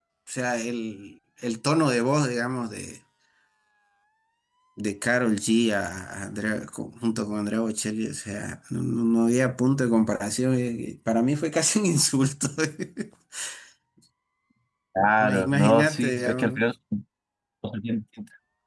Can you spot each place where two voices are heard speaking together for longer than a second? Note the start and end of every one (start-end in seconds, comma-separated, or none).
15.0-16.7